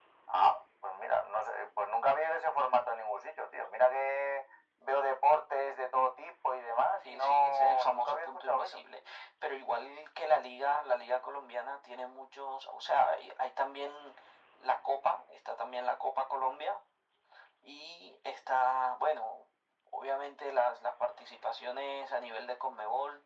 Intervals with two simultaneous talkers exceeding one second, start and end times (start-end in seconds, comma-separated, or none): 7.0-8.8